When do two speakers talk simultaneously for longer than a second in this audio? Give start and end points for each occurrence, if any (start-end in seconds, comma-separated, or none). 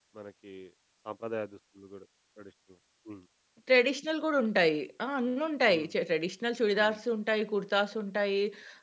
none